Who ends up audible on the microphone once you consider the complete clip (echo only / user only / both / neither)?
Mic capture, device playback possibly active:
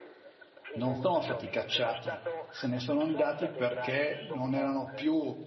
both